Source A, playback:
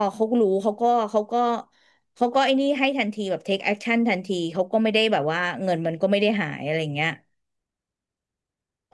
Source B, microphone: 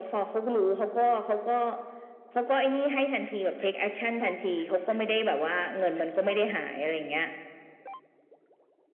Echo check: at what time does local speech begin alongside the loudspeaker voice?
none

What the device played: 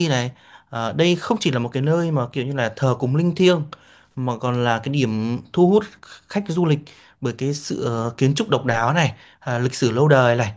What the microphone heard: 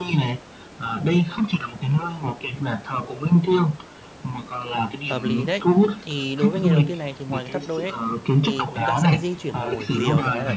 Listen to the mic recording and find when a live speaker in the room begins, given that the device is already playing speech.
5 s

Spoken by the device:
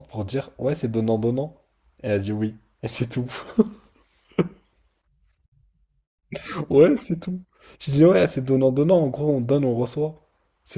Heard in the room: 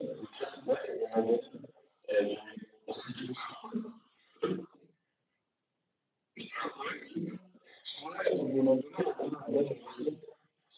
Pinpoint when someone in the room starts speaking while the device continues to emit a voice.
none

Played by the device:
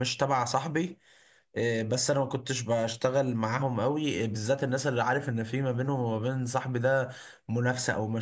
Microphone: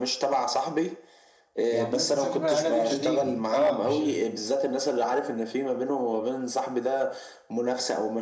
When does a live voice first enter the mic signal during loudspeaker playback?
2 s

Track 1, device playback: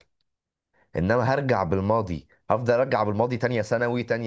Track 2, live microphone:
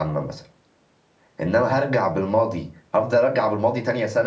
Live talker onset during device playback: none

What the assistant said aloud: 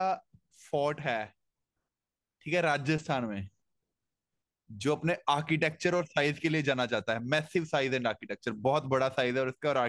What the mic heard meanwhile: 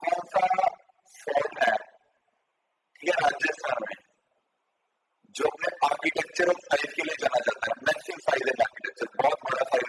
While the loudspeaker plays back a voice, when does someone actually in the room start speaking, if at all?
none

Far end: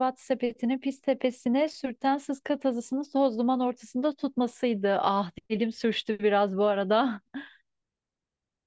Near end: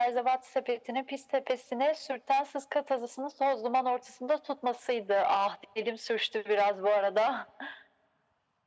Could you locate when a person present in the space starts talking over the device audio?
none

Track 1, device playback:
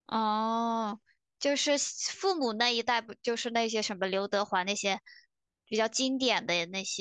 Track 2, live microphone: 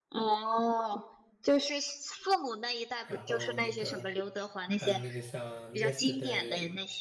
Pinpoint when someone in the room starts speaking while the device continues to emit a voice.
3 s

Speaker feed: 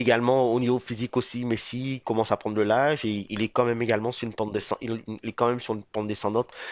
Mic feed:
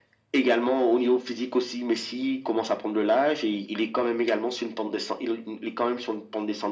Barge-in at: none

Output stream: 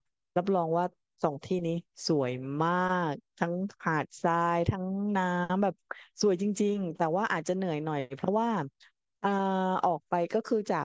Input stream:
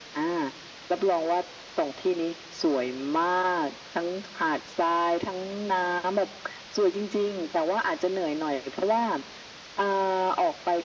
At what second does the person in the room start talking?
none

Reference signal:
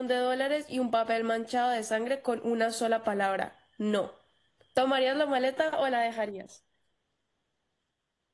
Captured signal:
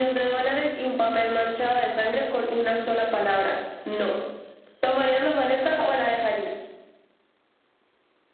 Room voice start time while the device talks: none

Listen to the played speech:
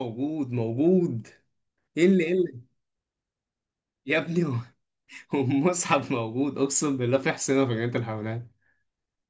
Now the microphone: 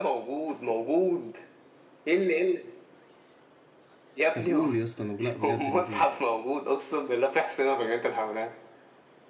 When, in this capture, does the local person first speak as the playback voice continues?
4 s

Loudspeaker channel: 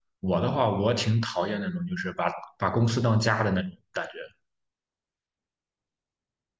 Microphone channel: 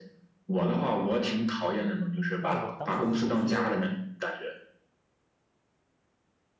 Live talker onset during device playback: 2 s

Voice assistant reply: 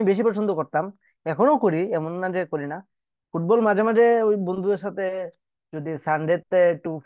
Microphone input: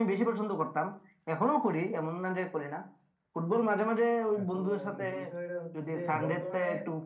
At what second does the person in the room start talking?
4 s

